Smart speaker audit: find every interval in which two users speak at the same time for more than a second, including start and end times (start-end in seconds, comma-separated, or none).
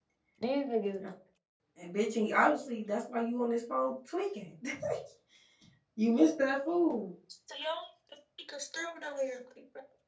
none